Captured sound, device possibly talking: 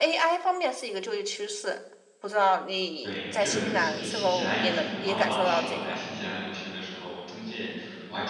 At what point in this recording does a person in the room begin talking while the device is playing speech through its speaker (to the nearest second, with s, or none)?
3 s